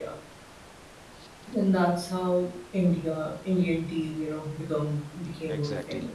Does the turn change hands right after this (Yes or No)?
Yes